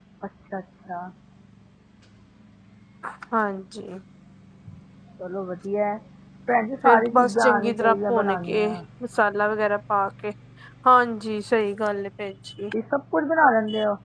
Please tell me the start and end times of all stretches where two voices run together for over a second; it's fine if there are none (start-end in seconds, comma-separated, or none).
6.8-8.7